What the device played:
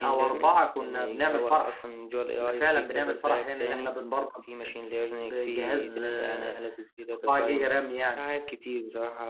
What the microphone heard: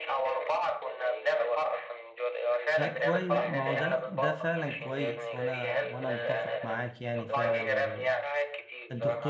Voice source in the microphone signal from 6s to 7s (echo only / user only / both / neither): both